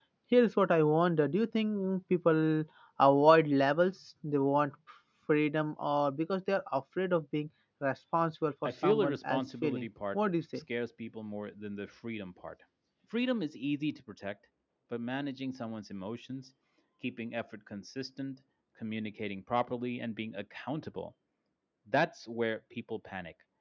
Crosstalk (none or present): present